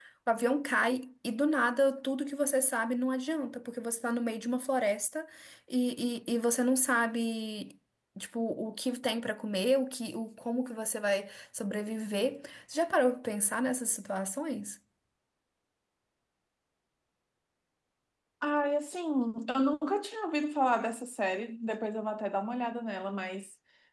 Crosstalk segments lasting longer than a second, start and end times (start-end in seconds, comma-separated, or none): none